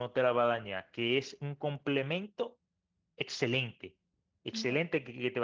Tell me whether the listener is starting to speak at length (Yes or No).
No